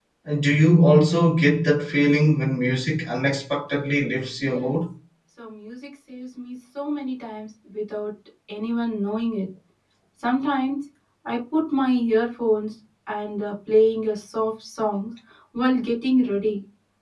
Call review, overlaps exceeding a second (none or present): none